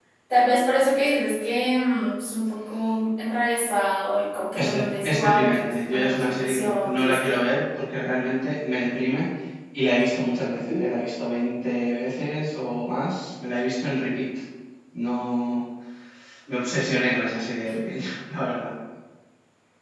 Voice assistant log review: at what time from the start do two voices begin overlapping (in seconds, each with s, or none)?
4.5 s